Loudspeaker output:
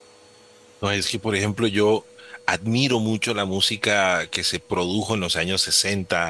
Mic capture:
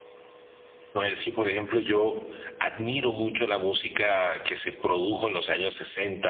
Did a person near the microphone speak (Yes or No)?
No